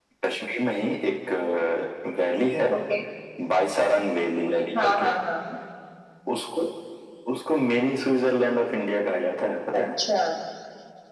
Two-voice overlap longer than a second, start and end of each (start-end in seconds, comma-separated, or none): none